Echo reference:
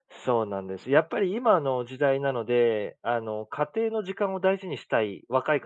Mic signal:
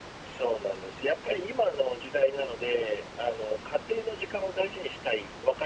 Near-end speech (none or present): none